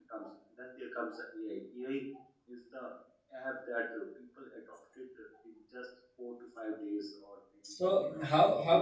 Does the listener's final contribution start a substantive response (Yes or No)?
Yes